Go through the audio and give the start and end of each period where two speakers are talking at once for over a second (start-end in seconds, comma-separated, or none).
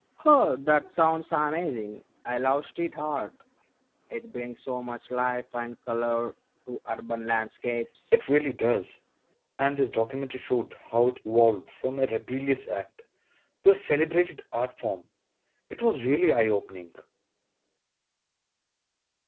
none